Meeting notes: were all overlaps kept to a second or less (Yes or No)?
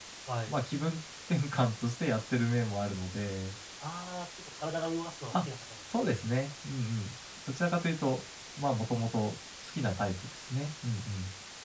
Yes